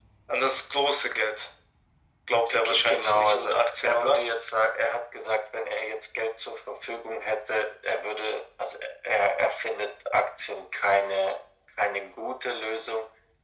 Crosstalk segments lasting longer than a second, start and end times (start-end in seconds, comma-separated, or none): 2.6-4.2